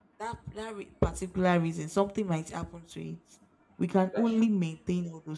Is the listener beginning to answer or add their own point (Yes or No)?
No